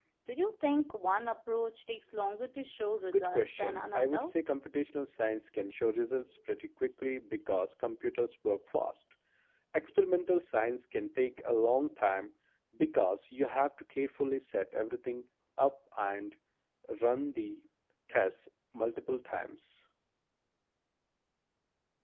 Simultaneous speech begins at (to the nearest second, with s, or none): 3 s